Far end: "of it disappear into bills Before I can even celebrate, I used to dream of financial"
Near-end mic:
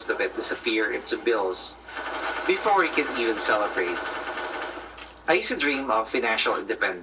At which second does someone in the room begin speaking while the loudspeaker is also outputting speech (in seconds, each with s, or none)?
none